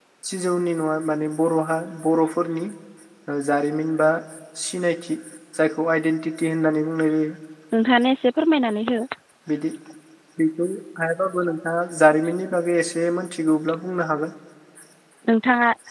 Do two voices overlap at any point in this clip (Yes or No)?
No